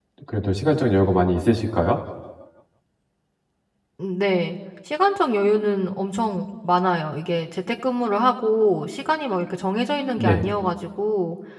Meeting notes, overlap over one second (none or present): none